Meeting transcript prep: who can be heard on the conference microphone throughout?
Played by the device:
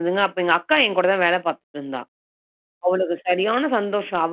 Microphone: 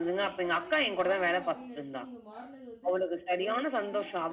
both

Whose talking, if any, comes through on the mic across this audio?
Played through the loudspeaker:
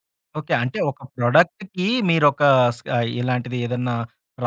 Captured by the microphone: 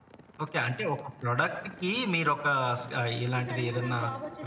both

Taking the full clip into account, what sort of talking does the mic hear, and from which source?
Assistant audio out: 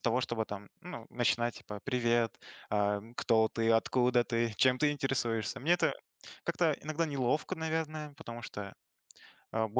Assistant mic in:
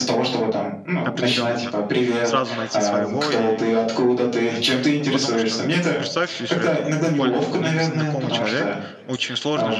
both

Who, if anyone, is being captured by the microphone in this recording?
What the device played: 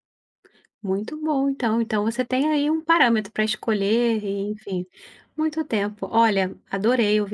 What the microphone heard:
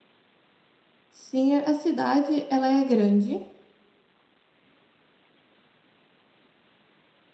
user only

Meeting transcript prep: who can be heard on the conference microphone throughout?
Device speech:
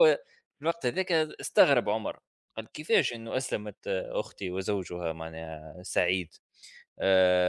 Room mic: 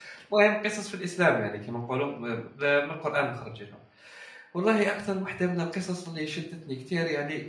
user only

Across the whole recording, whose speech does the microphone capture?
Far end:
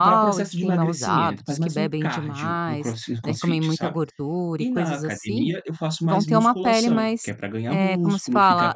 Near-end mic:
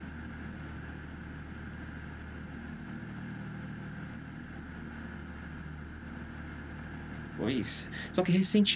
user only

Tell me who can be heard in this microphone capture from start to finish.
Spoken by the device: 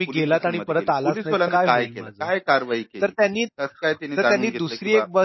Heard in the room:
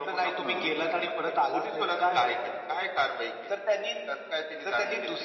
both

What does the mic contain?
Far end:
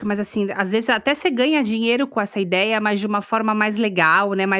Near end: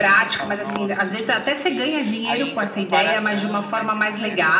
both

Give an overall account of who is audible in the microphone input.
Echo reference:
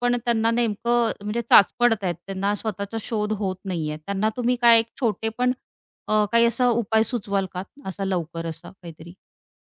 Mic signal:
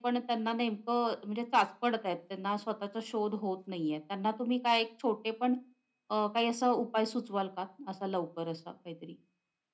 echo only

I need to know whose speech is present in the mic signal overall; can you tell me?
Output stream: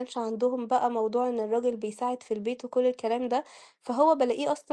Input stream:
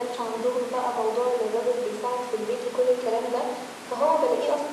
echo only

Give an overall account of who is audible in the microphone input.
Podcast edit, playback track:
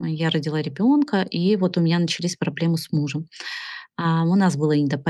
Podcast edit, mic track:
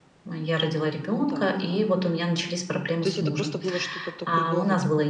both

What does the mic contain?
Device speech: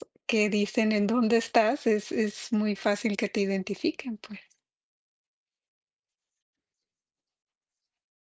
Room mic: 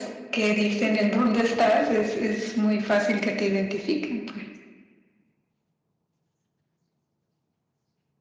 echo only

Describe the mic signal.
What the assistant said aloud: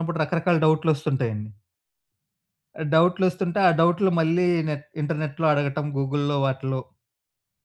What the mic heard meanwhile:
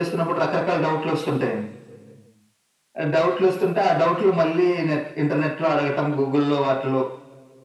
echo only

